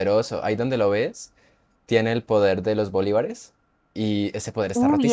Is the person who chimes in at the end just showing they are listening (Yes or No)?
No